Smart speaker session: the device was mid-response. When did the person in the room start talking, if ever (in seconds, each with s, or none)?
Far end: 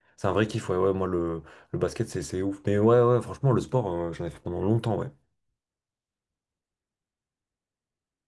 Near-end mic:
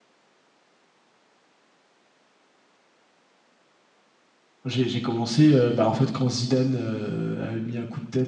4.6 s